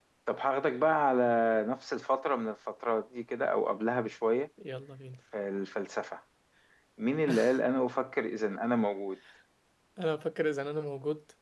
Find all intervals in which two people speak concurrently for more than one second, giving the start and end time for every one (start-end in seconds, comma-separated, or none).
none